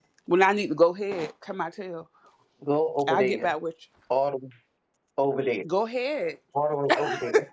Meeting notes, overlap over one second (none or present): none